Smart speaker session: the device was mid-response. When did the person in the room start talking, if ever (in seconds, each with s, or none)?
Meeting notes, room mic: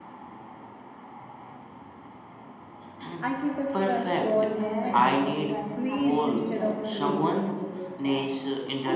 3.2 s